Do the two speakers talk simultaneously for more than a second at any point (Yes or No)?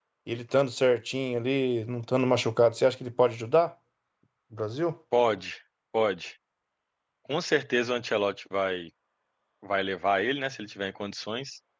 No